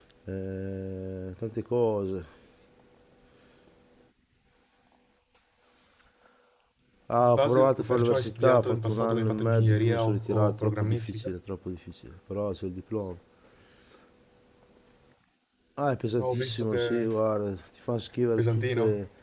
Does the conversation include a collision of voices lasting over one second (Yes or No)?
Yes